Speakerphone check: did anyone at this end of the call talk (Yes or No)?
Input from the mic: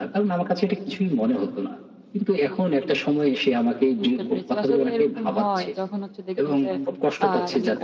Yes